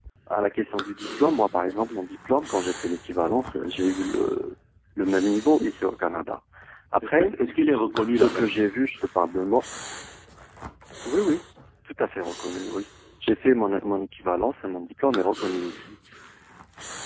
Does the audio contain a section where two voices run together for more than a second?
No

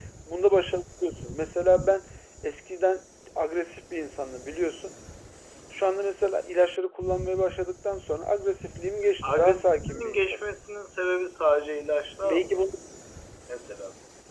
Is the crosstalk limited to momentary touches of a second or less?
No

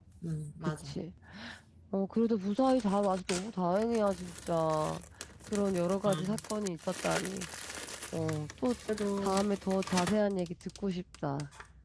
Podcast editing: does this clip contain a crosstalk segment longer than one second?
No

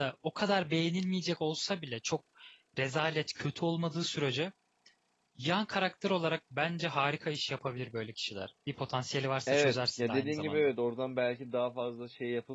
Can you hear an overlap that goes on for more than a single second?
Yes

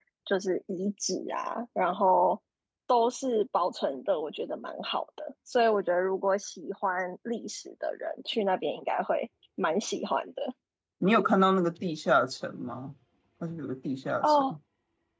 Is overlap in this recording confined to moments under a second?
Yes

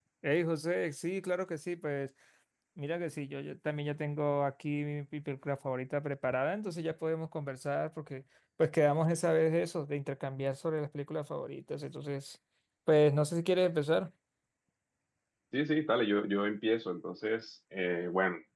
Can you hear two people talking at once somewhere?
No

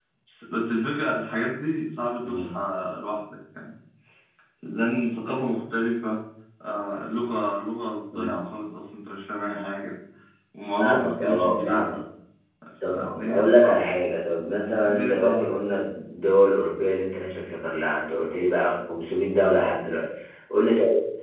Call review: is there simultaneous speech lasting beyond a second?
Yes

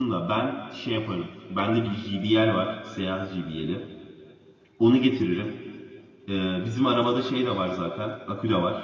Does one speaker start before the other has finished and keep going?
No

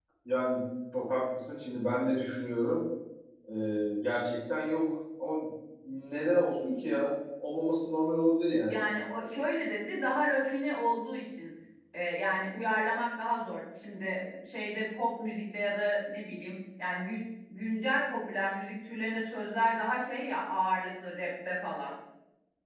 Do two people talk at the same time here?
No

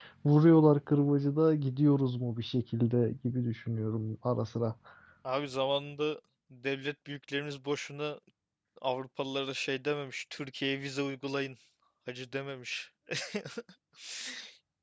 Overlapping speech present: No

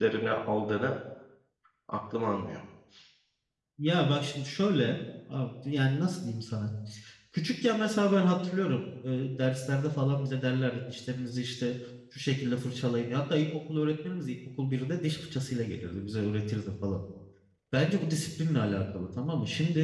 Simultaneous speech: No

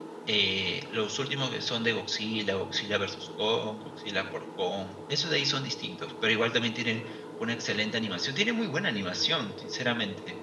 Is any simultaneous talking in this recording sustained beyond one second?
No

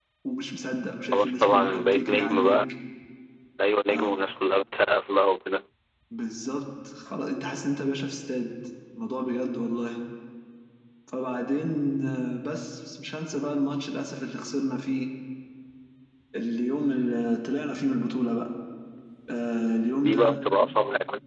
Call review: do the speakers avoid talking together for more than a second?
No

